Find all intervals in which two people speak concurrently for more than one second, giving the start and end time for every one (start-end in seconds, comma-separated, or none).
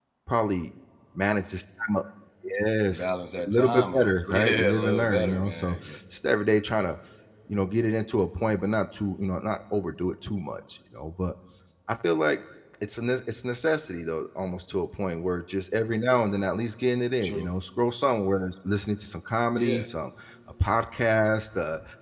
3.5-6.0